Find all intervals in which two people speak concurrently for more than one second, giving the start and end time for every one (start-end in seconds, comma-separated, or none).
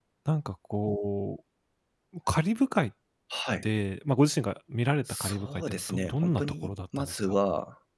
5.1-7.4